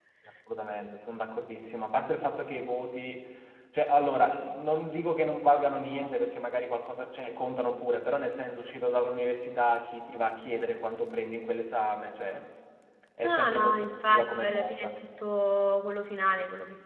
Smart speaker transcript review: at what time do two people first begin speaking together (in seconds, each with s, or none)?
13.2 s